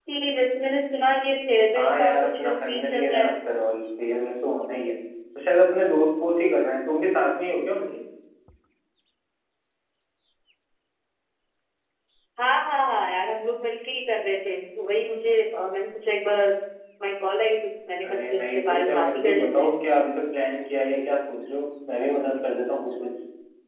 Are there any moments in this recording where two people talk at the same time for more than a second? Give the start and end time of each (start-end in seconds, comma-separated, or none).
1.8-3.3, 18.0-19.7